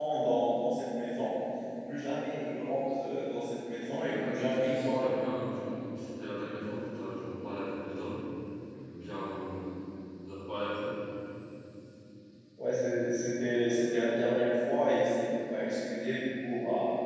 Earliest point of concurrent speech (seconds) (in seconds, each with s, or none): 4.0 s